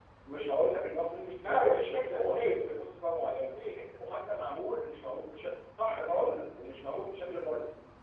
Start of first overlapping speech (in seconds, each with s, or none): 1.4 s